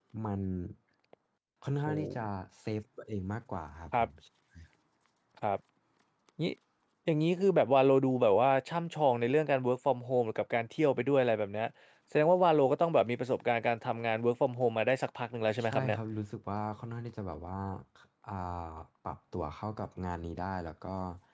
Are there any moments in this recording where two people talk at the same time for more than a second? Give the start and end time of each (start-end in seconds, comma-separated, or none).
none